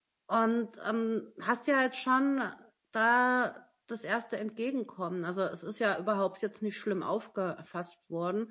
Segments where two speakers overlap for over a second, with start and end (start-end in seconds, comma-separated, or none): none